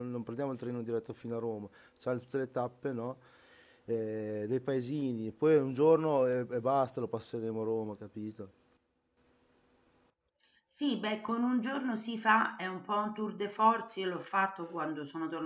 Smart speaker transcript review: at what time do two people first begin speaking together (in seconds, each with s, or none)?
none